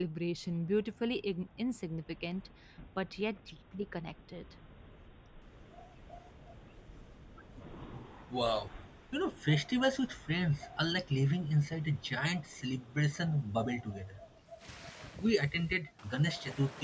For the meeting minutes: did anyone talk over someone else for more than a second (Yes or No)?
No